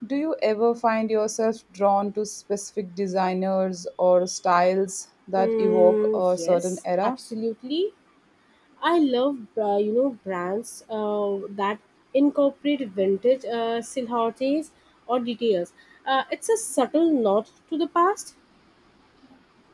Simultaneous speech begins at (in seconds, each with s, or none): 5.3 s